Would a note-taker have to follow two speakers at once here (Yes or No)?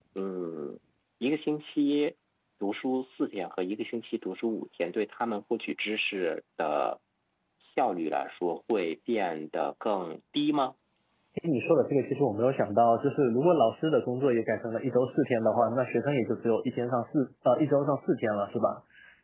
No